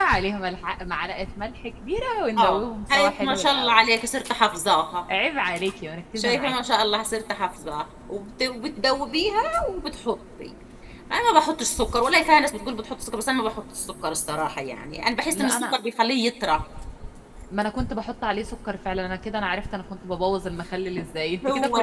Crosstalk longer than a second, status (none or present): present